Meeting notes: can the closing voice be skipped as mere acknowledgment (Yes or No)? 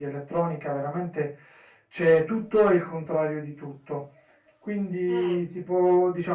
Yes